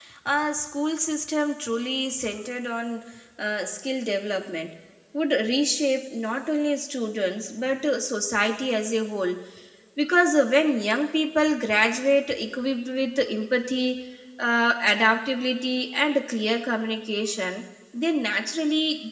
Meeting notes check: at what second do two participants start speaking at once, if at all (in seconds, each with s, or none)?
none